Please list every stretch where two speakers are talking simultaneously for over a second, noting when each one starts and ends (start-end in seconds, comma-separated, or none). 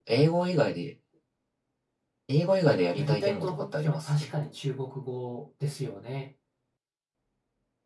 3.0-4.3